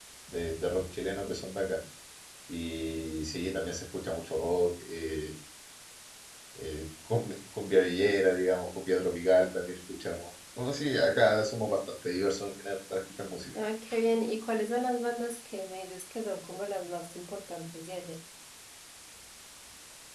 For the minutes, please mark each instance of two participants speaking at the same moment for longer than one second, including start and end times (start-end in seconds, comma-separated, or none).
none